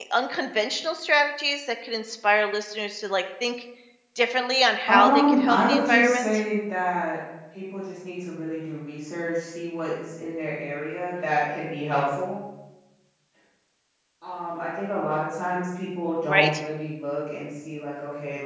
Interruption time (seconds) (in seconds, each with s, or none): 4.9 s